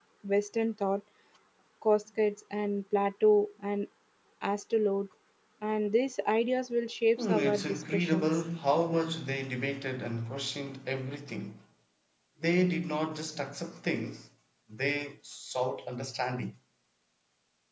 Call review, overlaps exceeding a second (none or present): present